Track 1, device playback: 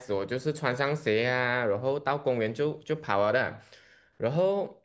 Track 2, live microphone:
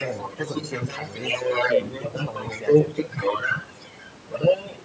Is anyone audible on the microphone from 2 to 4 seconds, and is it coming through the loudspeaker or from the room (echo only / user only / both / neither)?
both